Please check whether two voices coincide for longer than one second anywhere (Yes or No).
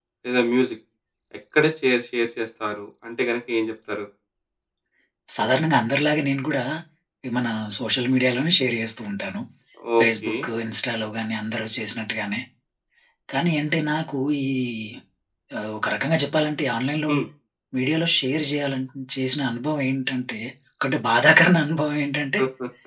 No